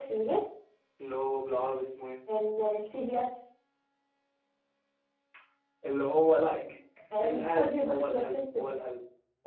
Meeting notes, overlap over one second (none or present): present